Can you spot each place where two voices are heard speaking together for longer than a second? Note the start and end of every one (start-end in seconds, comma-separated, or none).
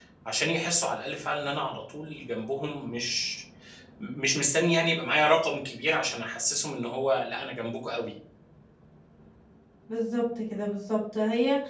none